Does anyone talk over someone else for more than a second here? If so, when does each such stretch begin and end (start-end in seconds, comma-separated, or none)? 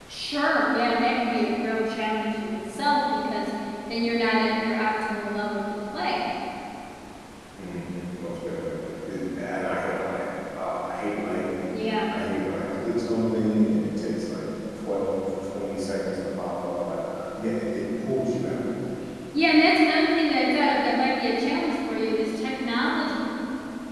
none